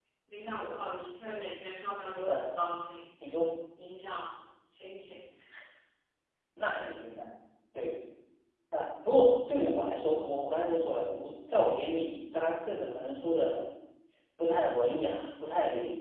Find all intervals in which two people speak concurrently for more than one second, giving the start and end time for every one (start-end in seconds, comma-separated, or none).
none